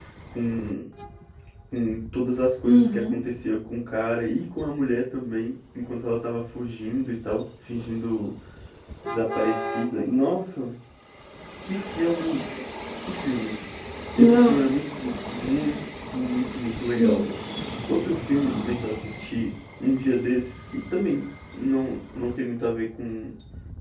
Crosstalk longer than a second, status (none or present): none